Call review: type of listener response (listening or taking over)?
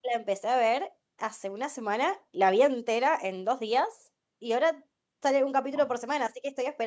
listening